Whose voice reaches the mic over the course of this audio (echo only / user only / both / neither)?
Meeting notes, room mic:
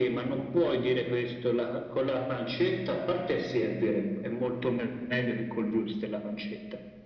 echo only